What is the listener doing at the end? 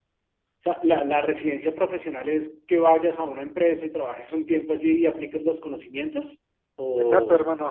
taking over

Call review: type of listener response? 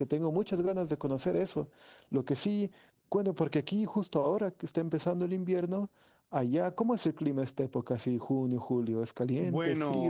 taking over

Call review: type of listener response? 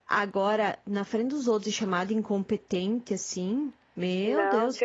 taking over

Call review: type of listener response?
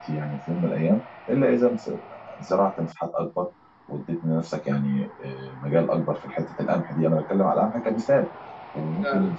listening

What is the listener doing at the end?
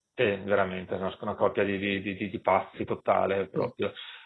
listening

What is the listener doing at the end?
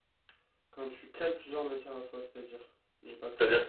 taking over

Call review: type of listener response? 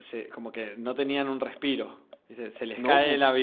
listening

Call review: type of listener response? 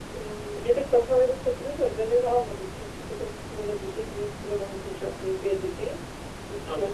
listening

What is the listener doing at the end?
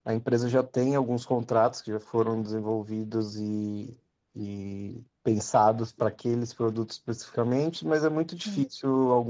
listening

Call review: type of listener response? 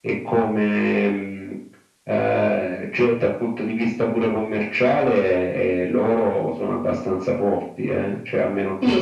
taking over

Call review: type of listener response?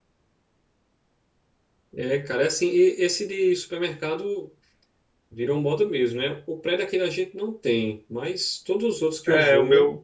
taking over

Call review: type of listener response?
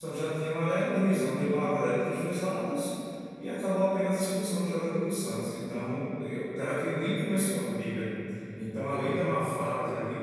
listening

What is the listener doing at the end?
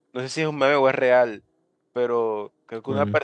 listening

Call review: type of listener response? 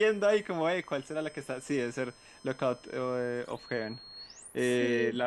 listening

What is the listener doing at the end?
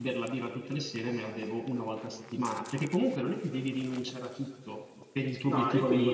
listening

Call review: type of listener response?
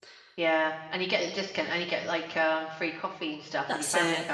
taking over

